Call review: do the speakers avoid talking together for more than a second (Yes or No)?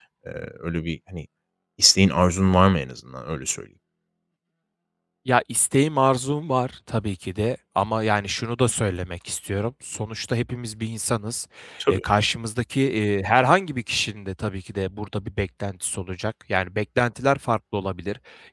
Yes